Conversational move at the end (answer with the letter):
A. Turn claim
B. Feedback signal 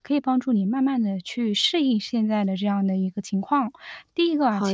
B